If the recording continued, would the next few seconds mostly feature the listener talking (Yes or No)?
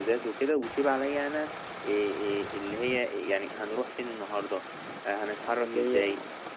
No